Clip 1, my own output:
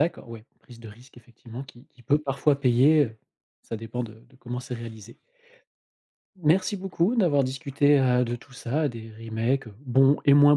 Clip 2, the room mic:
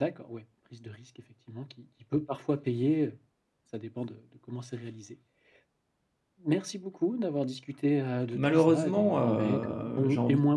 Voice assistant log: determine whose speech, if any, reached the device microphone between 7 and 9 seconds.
both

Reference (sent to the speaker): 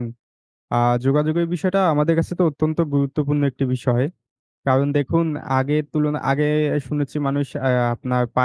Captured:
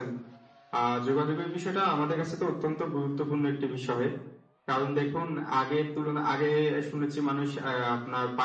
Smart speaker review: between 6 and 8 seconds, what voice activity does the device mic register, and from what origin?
echo only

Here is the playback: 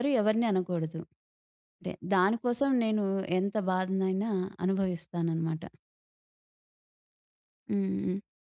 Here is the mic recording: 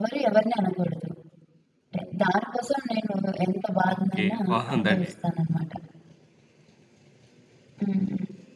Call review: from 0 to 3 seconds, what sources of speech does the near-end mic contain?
echo only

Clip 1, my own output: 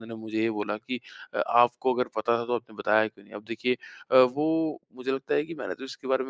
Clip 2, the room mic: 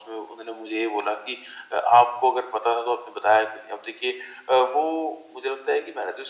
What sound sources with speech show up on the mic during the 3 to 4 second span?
echo only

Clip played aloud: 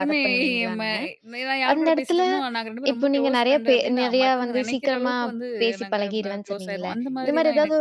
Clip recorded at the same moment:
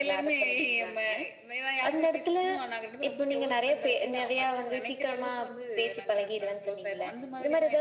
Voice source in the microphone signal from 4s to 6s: echo only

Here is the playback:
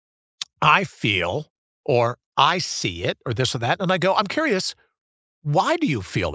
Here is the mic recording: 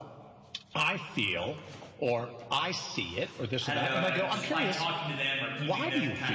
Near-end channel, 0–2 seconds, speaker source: echo only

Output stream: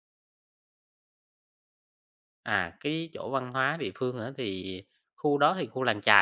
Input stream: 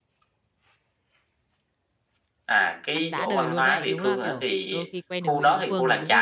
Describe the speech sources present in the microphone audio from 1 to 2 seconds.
neither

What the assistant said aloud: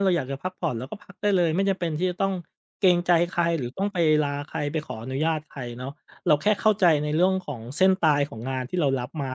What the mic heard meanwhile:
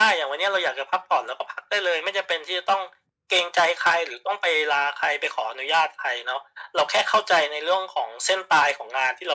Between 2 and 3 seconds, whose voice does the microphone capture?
echo only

